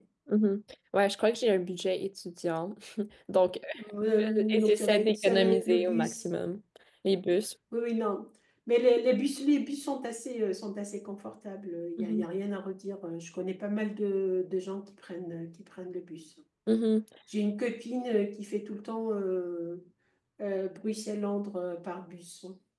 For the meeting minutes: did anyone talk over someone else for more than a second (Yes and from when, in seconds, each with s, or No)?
Yes, from 4.2 s